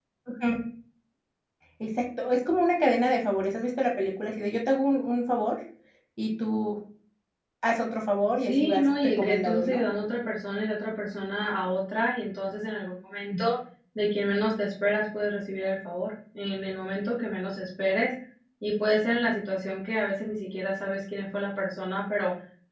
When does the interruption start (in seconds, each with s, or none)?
8.5 s